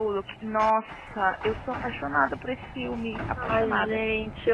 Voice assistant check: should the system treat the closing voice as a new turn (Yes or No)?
Yes